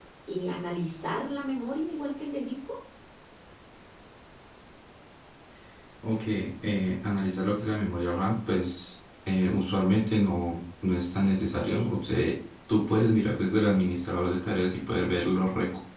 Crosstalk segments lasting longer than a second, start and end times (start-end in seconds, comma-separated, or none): none